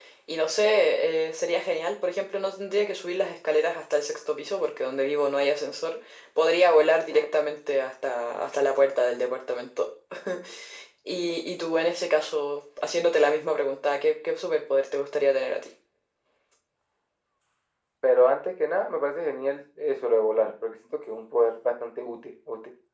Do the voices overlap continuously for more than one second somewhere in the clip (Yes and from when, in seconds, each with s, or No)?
No